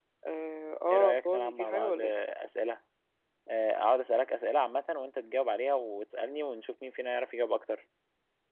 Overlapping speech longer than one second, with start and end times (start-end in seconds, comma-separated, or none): 0.9-2.1